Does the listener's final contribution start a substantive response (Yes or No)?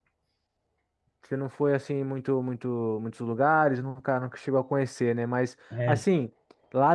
No